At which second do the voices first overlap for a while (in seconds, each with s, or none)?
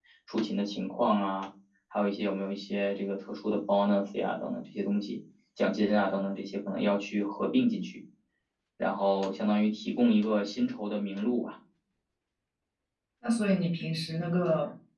none